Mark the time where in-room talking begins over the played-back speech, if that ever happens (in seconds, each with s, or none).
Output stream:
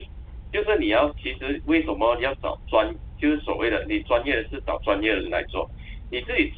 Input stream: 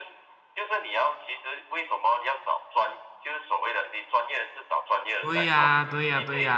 5.2 s